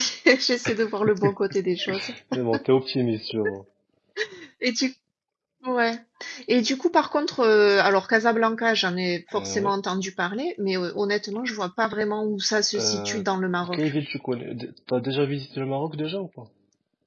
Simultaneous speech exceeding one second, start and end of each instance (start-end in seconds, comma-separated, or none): none